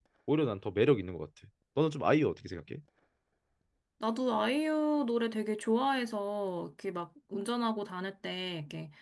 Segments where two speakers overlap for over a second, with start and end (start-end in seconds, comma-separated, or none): none